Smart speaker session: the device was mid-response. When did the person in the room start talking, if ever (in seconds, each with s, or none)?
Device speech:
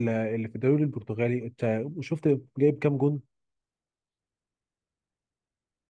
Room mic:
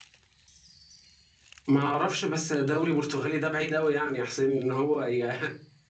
1.7 s